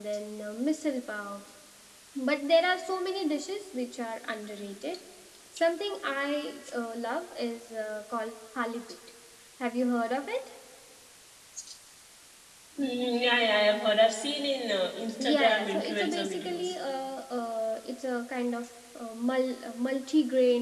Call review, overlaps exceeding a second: present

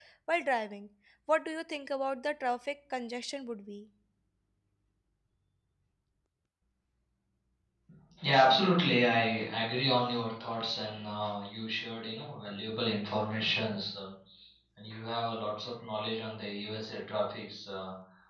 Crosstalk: none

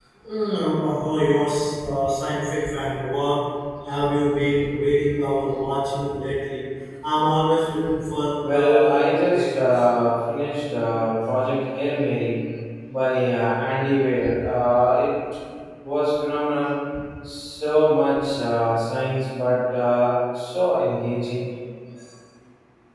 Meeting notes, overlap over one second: present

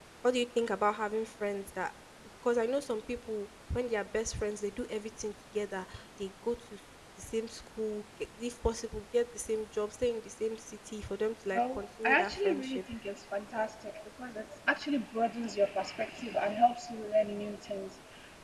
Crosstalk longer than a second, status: present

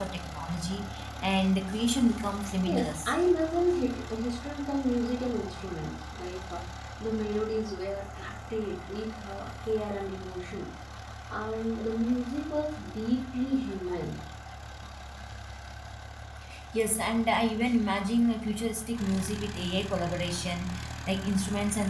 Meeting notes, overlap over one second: none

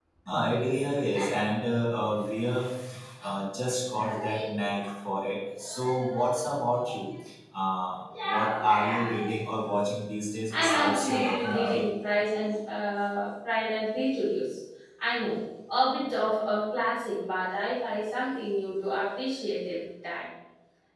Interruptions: present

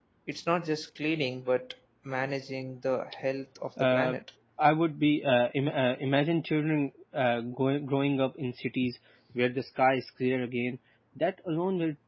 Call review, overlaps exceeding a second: none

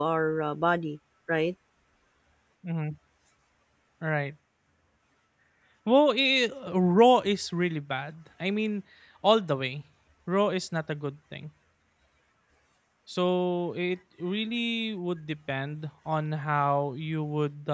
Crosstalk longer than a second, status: none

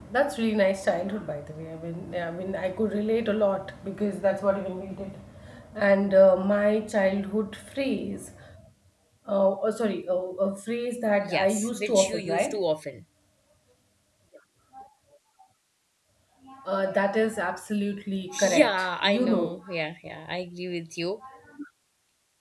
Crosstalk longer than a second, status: present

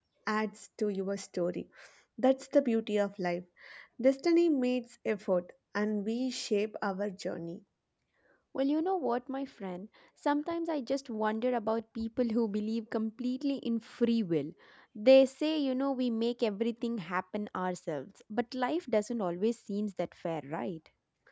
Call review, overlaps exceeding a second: none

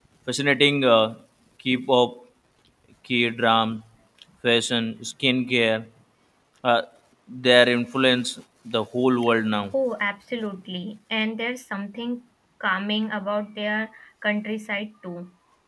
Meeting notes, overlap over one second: none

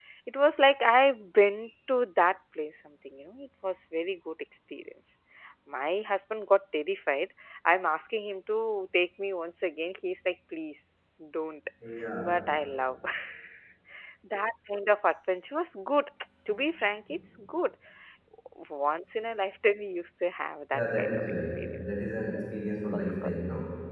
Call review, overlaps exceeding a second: present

